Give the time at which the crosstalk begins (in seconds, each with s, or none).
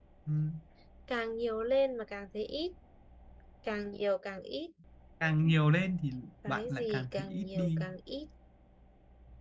6.4 s